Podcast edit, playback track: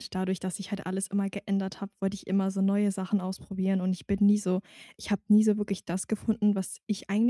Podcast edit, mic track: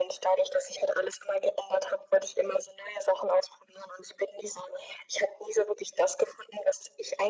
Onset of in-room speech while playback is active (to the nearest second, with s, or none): none